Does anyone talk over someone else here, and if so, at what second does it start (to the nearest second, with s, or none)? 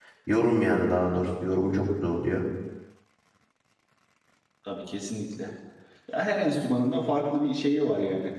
none